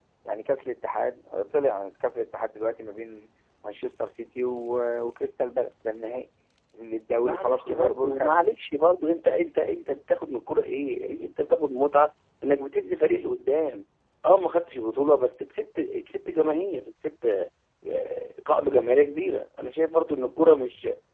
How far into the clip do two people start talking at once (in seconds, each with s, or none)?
7.2 s